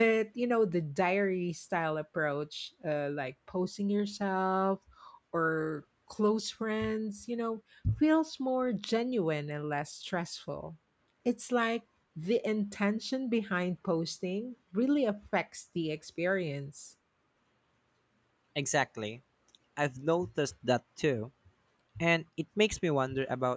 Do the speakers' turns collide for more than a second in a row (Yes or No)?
No